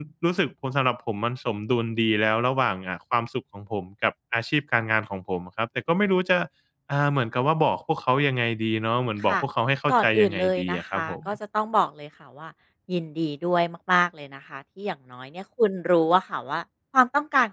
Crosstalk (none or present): present